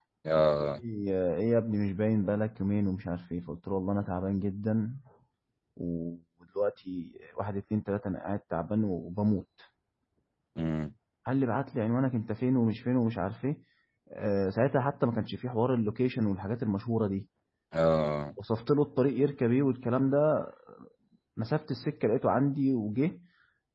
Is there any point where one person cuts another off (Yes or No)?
No